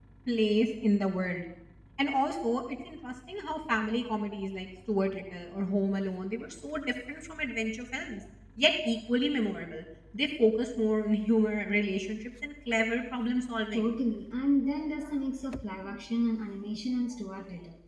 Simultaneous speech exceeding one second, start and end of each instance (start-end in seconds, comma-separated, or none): none